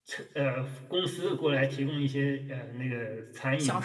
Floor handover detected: Yes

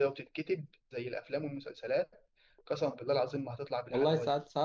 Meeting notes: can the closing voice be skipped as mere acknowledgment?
No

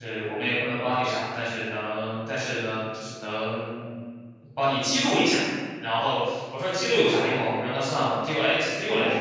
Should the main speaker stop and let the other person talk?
Yes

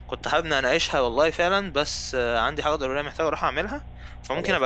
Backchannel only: Yes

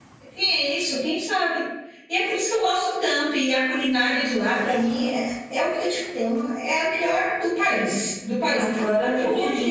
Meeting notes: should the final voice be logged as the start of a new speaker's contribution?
Yes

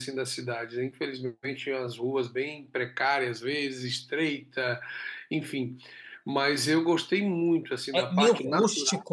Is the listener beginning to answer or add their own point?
Yes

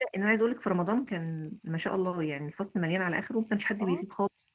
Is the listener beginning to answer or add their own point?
Yes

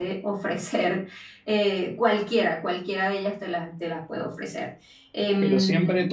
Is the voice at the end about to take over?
Yes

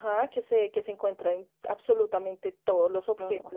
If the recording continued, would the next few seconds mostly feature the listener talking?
No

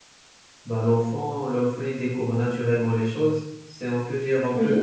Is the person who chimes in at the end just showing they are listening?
Yes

